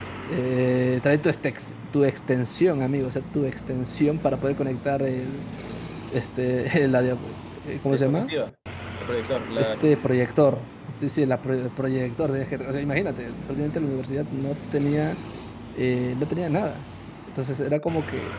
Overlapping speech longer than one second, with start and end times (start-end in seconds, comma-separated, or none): none